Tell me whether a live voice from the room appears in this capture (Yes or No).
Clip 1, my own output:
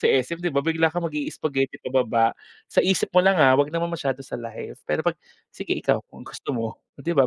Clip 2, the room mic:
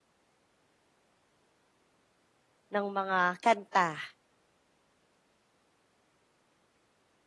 Yes